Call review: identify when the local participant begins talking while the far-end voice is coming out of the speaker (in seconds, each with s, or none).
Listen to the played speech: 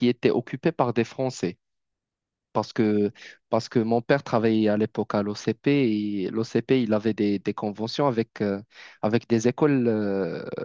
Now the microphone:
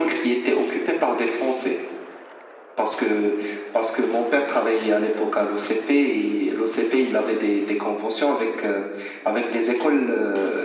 none